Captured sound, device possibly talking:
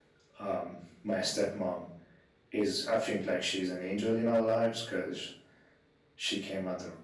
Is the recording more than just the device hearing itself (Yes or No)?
Yes